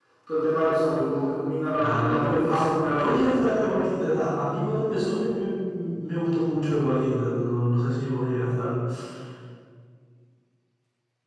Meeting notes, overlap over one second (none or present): present